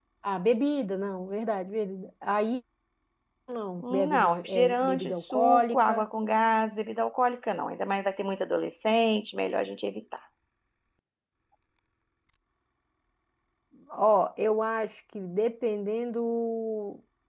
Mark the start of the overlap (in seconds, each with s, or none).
3.8 s